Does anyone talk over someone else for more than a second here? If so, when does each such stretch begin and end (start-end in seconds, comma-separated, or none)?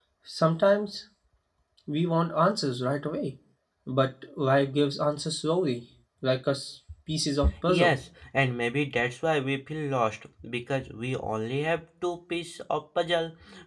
none